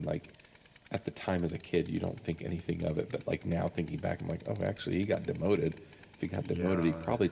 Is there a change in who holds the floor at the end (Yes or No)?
No